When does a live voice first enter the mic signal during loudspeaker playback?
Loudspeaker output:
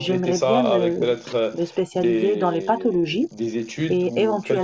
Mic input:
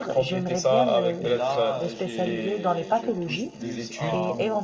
1 s

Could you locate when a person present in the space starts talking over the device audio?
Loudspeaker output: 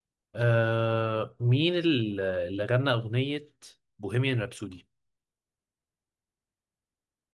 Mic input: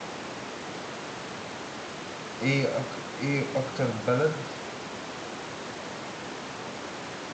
2 s

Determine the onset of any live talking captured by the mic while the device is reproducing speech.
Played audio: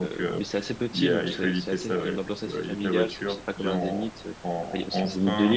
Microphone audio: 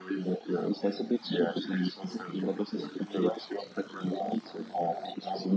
none

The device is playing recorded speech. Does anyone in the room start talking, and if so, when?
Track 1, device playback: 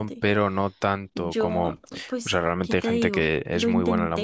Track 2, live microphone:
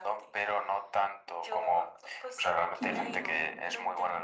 3 s

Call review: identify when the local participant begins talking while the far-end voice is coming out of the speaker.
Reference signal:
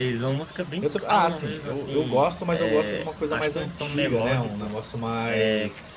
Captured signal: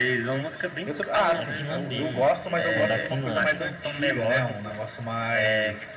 1 s

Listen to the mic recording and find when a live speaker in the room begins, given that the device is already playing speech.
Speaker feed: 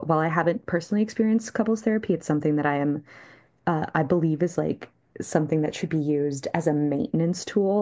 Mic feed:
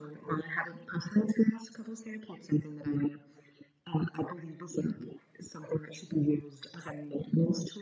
none

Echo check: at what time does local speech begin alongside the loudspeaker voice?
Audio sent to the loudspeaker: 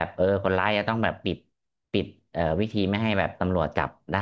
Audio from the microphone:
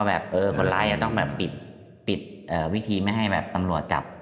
1 s

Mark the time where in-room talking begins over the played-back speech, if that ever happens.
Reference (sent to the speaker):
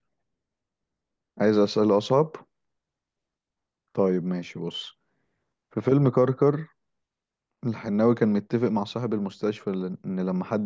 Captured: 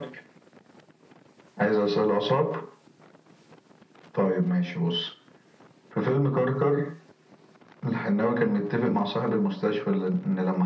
none

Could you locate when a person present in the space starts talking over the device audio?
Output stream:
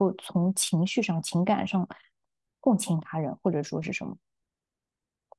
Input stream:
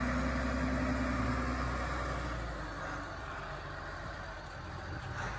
none

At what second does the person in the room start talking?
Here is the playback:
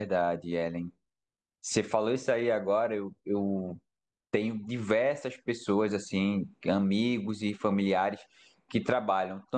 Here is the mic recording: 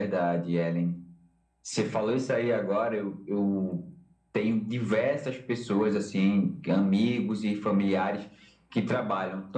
none

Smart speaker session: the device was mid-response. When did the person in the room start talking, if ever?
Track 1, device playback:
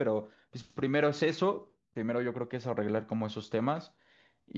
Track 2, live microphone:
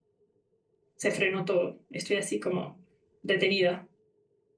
1 s

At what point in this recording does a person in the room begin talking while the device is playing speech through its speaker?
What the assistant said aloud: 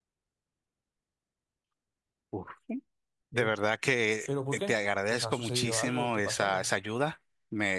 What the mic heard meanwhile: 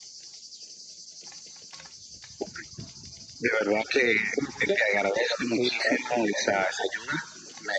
none

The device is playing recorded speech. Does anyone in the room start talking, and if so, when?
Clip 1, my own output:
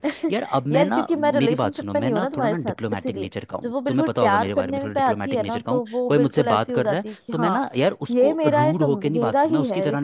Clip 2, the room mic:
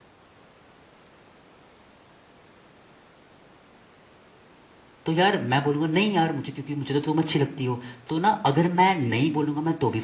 5 s

